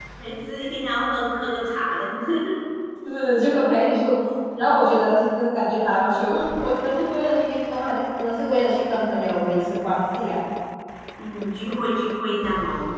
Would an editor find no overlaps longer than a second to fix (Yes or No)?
Yes